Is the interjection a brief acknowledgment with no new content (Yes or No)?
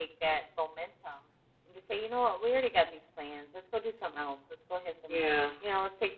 Yes